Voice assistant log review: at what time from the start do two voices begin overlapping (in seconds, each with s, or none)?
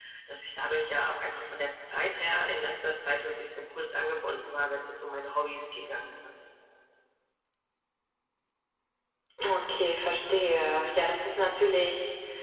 none